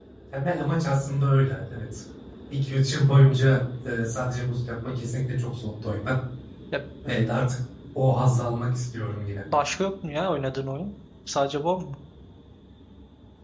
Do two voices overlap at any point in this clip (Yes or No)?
No